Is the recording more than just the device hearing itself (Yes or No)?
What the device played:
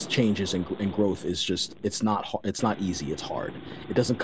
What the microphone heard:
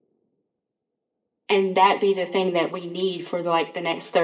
Yes